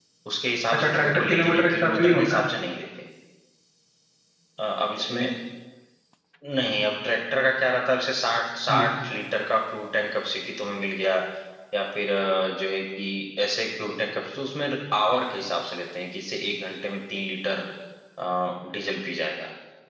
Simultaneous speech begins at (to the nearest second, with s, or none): 1 s